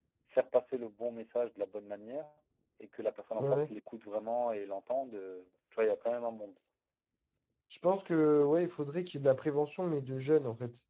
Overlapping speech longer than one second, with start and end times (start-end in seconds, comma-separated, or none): none